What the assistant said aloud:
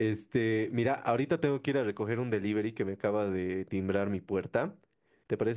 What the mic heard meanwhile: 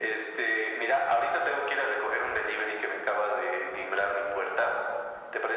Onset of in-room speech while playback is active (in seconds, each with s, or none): none